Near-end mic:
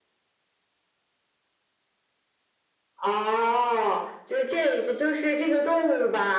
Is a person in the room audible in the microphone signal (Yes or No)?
No